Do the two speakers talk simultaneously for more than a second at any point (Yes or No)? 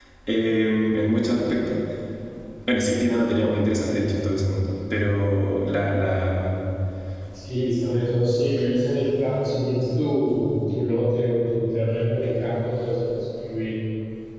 No